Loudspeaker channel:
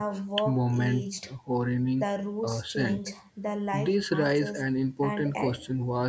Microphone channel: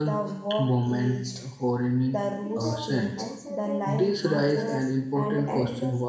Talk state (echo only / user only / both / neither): both